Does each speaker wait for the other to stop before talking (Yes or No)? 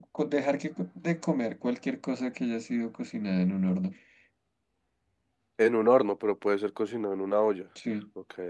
Yes